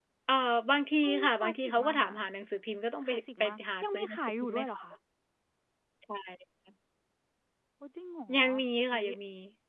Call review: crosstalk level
present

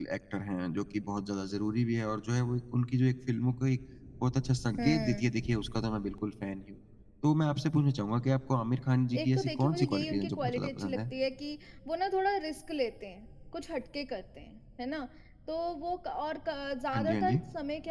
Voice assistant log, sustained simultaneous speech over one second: present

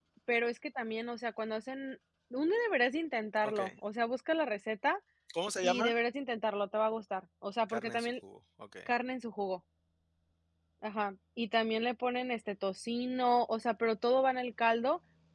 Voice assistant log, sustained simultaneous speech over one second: none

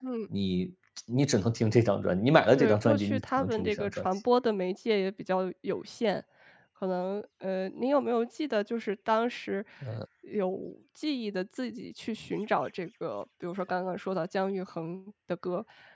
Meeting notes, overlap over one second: present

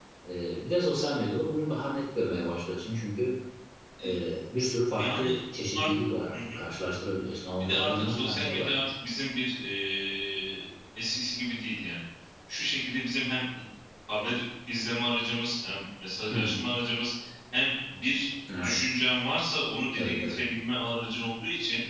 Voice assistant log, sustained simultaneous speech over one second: present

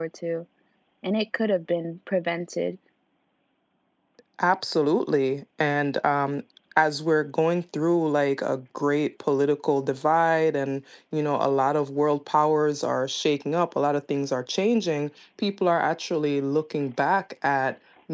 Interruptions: none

